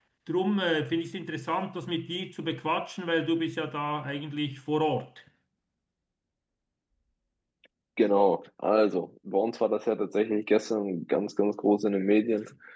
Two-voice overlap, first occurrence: none

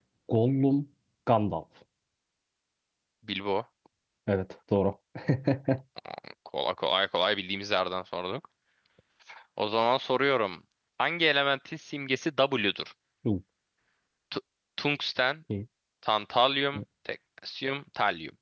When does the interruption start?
none

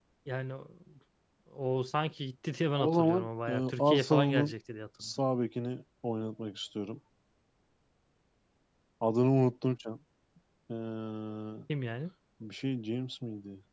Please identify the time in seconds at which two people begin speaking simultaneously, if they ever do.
2.8 s

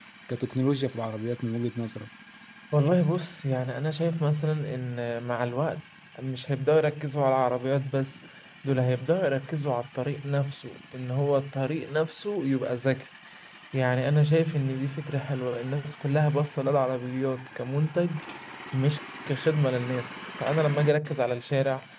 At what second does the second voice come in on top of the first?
none

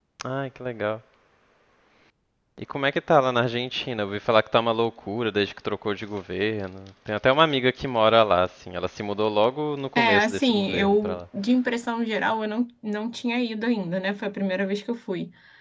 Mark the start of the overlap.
10.0 s

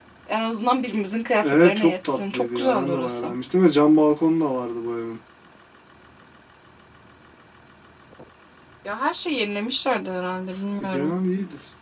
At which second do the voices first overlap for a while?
1.4 s

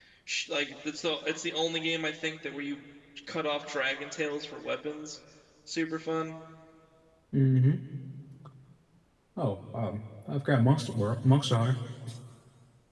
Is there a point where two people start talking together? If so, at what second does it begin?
none

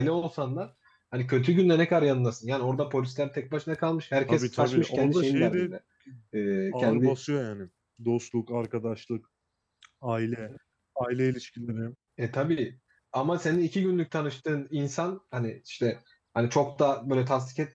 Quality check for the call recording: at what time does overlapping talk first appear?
4.3 s

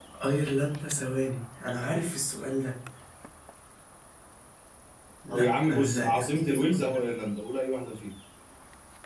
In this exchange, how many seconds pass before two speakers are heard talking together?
5.3 s

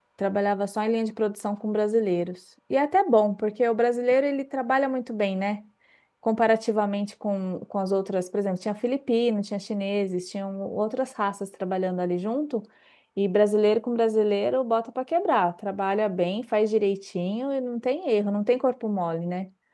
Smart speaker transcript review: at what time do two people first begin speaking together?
none

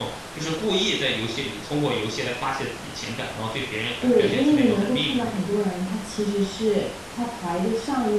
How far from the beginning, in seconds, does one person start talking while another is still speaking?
4.0 s

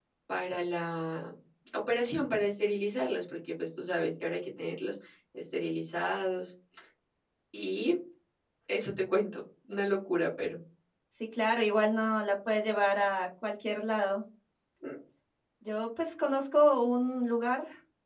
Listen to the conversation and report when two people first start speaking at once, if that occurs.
none

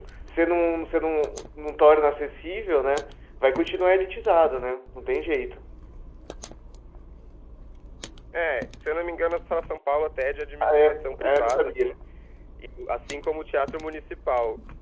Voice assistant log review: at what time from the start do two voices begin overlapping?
10.6 s

